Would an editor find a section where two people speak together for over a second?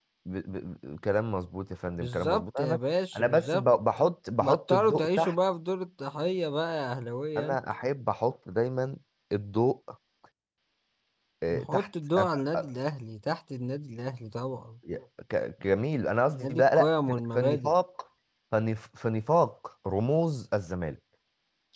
Yes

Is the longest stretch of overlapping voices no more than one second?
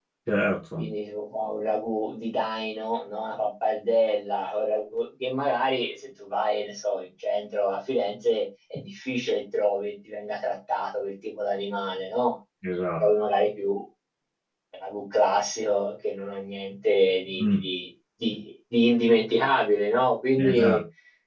Yes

